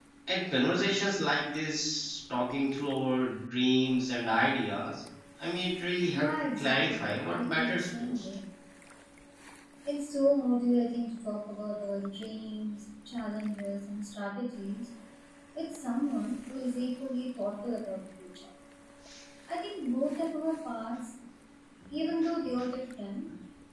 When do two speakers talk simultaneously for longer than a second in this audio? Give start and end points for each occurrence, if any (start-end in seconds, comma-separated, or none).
6.1-8.2